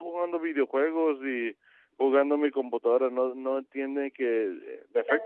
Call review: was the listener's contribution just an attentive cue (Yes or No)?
Yes